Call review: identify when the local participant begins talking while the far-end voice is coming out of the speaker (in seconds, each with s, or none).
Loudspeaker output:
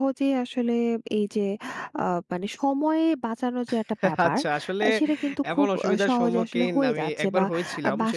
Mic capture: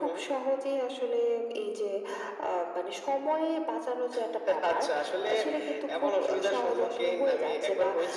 none